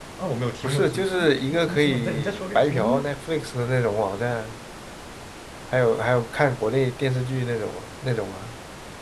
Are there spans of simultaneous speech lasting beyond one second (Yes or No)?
Yes